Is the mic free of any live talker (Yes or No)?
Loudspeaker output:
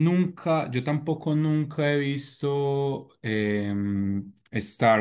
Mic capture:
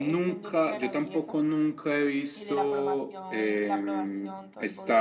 No